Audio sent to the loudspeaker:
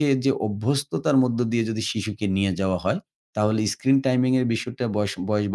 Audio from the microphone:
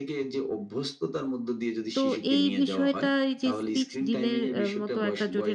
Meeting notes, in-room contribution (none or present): present